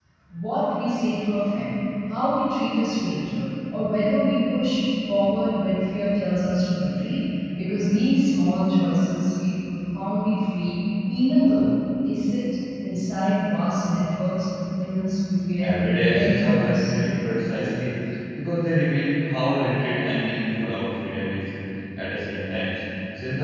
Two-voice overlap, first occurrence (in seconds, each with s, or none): 15.6 s